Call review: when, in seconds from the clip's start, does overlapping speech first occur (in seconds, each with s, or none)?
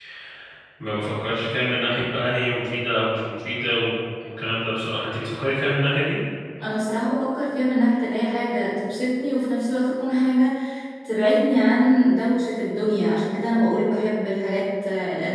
none